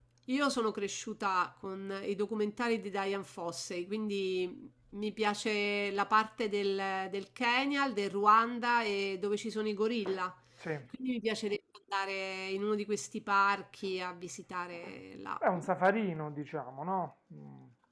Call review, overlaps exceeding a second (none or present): none